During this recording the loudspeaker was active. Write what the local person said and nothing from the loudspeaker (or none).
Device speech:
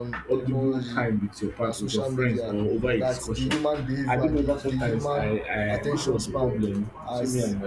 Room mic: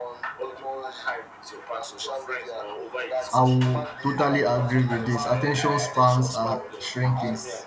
I will totally agree with this. Attention spans are shrinking.